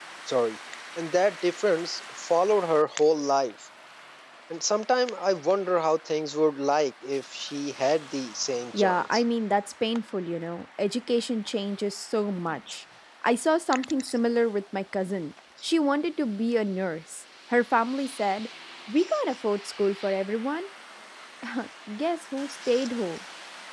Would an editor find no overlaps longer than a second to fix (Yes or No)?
Yes